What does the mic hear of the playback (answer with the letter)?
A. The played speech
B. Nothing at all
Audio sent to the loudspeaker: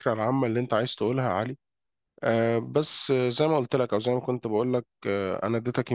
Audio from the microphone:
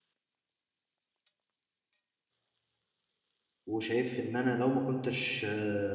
B